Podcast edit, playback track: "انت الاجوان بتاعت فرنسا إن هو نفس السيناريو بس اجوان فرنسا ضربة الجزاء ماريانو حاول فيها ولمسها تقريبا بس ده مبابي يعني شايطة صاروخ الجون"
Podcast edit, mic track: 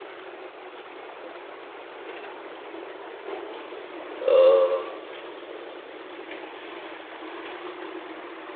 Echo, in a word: none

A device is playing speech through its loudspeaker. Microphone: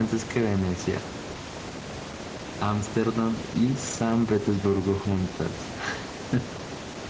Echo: none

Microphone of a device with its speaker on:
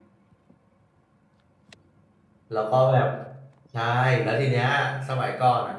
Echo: none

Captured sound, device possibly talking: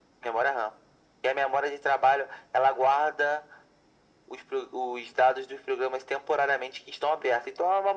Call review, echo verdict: present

